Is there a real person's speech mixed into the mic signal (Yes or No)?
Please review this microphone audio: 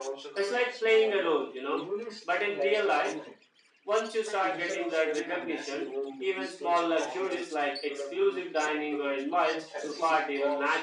Yes